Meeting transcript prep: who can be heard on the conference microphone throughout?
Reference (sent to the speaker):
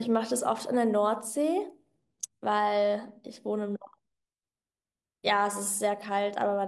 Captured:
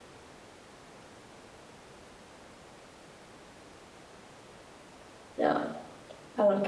user only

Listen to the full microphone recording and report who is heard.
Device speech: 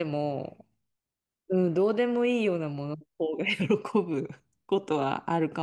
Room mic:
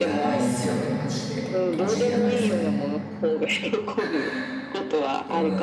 both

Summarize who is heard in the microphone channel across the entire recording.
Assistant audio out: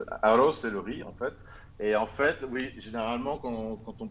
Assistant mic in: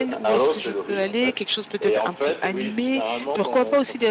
both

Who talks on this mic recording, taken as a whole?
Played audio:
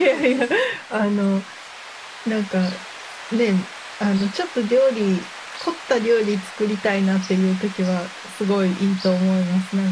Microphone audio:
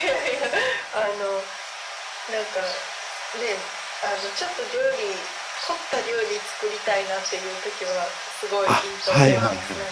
both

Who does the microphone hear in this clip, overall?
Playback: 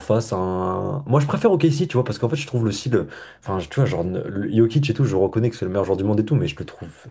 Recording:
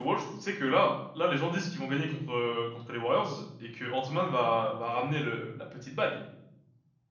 user only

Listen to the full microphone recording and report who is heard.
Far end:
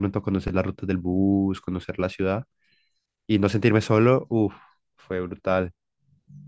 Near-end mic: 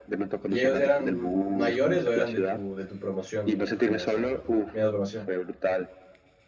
both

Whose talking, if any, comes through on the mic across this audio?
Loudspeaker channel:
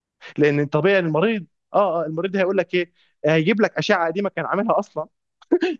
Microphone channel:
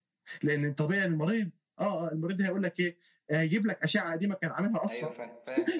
both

